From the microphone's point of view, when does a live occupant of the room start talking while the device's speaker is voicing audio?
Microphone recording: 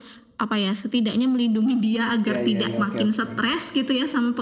2.3 s

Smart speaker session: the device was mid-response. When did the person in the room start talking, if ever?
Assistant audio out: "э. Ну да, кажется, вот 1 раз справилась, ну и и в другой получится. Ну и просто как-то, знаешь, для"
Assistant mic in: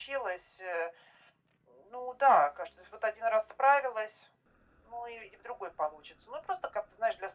none

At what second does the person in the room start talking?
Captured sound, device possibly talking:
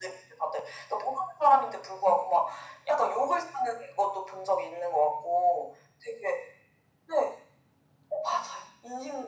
none

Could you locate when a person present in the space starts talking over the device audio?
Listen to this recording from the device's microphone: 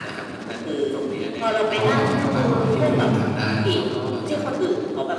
1.7 s

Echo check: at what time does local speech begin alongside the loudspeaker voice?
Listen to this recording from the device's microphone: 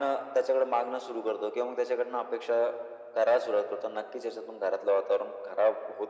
none

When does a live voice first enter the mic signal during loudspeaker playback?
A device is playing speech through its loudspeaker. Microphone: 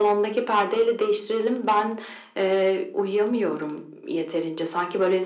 none

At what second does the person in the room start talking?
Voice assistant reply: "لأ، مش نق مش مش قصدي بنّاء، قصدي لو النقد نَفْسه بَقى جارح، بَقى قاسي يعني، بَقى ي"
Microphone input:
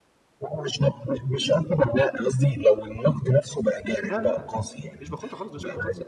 4.1 s

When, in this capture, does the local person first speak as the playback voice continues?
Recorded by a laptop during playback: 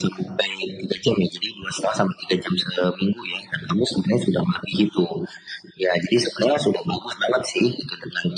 none

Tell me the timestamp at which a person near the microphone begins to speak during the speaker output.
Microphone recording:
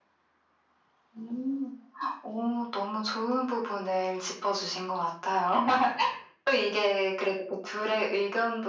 none

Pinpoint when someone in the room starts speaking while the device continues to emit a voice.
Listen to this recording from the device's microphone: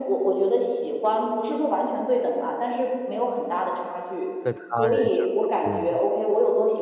4.4 s

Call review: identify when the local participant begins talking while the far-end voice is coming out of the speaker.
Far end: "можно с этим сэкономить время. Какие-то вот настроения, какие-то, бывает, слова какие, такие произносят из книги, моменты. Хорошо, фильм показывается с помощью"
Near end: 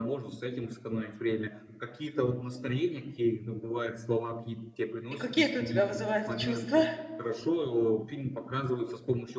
5.1 s

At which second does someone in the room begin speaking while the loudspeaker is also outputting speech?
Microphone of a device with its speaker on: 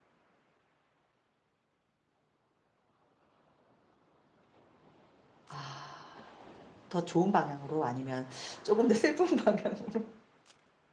5.5 s

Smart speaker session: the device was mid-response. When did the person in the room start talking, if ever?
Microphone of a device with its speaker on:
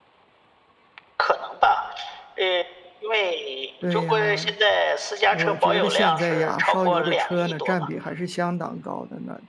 3.8 s

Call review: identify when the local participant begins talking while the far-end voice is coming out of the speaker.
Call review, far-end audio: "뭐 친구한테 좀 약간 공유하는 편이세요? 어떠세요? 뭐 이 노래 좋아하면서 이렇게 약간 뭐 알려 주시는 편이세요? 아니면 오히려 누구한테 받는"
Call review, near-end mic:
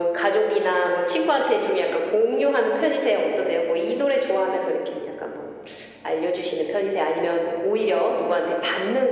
none

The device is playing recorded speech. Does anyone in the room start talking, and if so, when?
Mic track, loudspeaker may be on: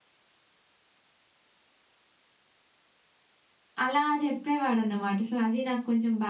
3.8 s

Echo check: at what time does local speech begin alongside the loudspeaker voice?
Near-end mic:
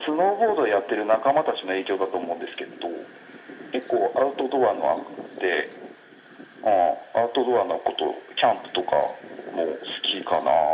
none

